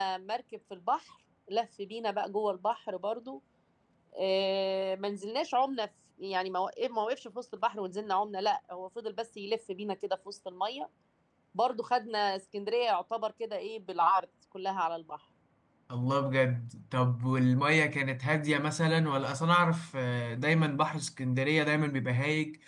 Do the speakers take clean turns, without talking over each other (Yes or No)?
Yes